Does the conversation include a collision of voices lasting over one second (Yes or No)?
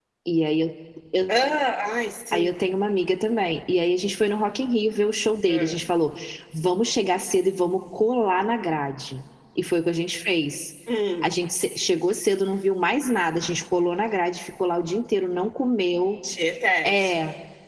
No